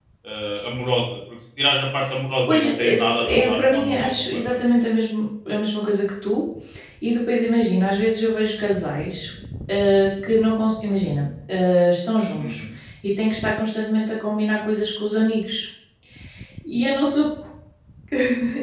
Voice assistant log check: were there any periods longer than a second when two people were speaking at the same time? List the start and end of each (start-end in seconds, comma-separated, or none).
2.5-4.6